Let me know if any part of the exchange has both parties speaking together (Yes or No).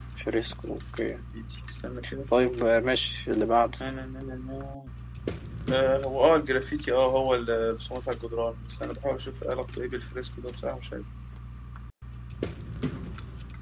No